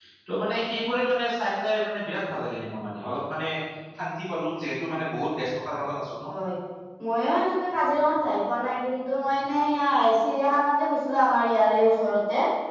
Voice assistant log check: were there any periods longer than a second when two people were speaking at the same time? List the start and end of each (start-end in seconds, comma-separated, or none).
none